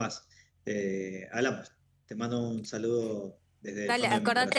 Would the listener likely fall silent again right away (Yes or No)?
No